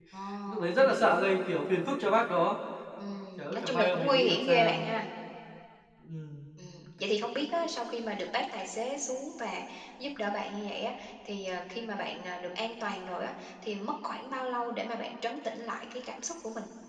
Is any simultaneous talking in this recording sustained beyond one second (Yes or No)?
Yes